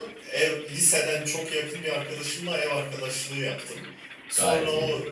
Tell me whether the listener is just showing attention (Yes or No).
Yes